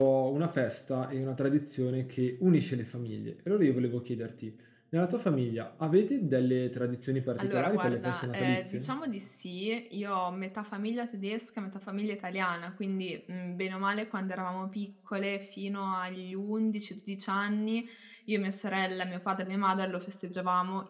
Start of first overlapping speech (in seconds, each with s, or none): 7.4 s